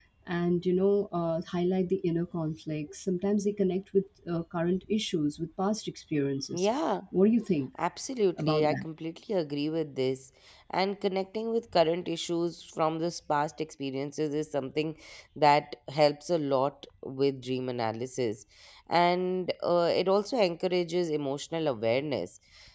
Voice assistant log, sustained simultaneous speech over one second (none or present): none